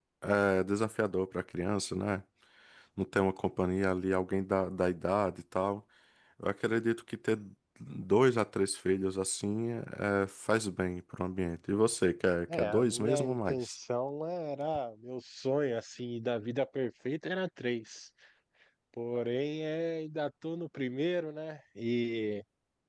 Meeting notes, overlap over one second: present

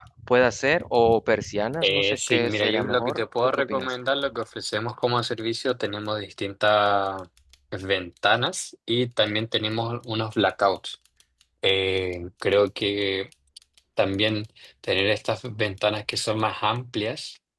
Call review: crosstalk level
present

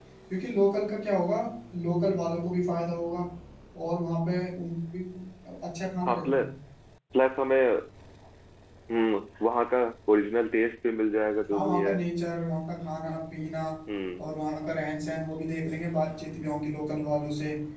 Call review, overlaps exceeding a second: none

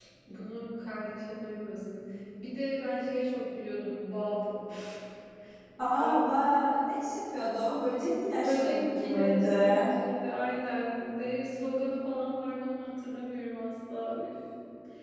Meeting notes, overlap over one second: present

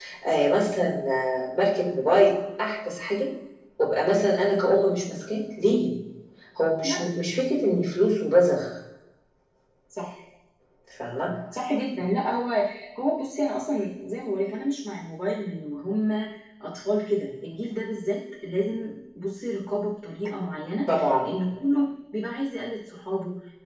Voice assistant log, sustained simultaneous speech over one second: none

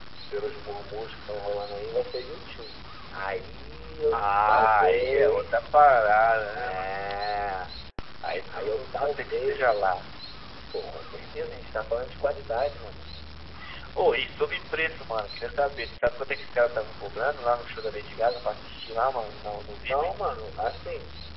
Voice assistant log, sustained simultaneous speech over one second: present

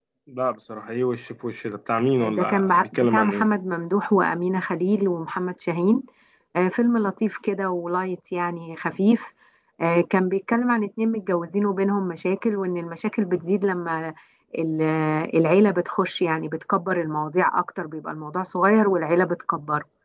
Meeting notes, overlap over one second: present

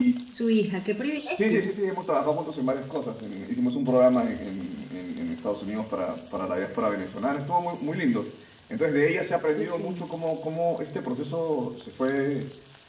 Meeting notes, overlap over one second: none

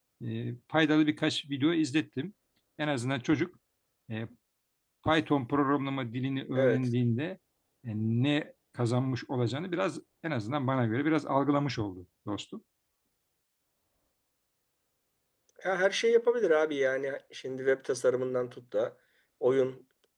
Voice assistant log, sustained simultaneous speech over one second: none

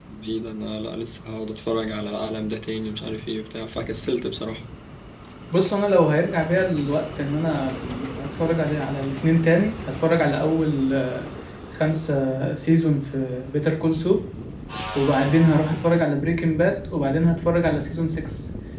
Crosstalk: none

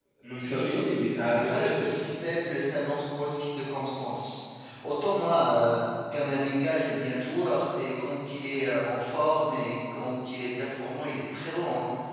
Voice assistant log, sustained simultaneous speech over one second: none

